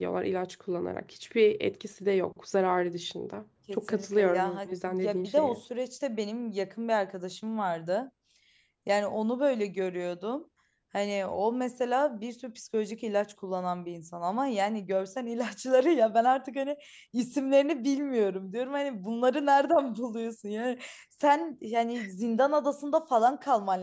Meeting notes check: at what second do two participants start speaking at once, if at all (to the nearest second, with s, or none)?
4 s